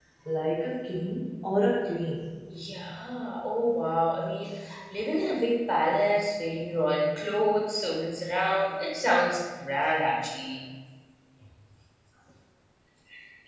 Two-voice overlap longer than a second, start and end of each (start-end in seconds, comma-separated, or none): none